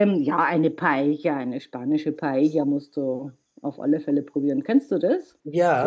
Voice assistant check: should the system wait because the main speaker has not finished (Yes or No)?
No